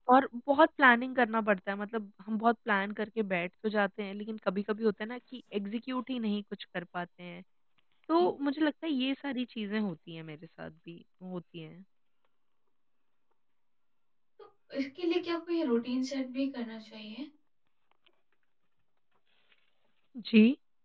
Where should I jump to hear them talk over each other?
none

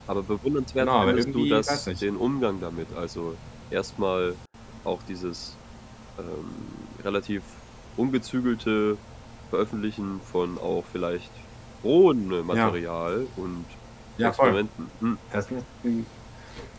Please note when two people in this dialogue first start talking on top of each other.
0.8 s

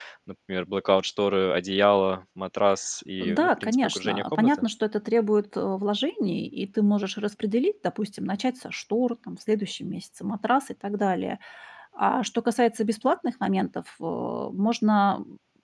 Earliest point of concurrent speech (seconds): 3.2 s

